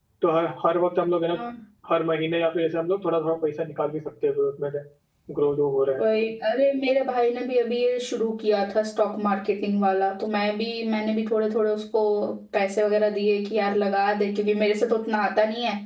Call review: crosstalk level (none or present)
none